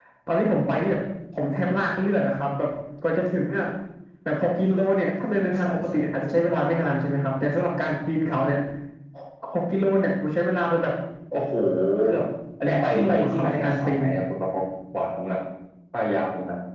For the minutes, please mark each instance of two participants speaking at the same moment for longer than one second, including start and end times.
12.7-14.0

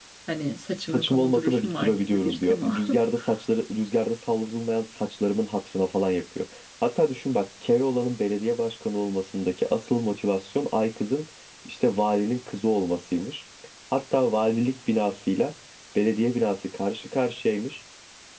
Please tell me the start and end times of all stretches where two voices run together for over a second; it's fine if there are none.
0.9-2.8

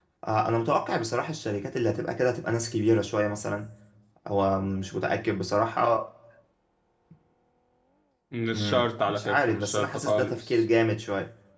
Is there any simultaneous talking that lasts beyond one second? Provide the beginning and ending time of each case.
8.5-10.6

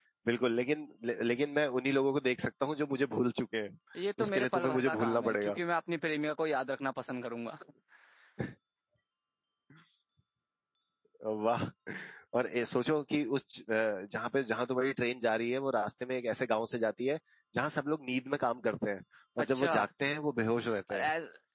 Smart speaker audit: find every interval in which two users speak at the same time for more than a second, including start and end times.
4.2-5.5

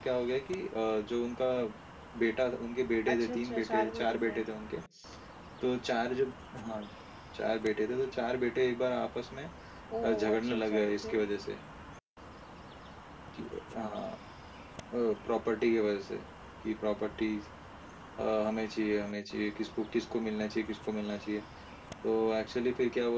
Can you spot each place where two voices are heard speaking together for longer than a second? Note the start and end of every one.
3.1-4.4, 10.0-11.2

